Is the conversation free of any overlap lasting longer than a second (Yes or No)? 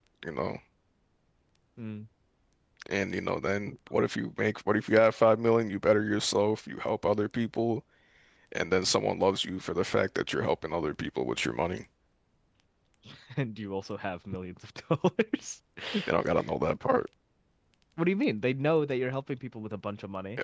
Yes